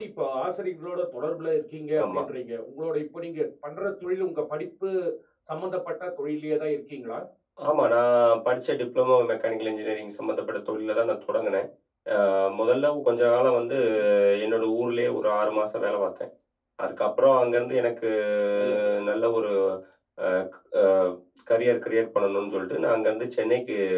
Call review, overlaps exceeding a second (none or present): none